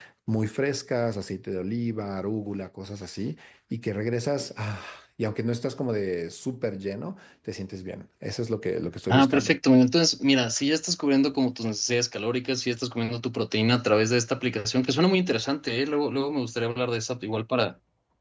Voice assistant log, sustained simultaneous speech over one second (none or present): none